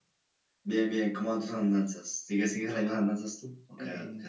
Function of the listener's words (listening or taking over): taking over